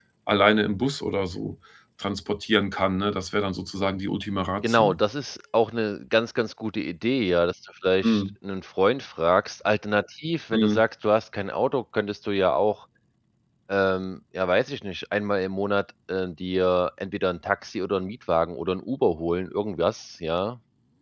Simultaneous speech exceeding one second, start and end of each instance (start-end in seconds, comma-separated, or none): none